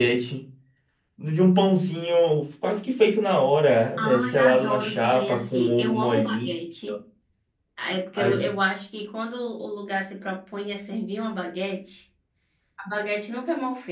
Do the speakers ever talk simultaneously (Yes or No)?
Yes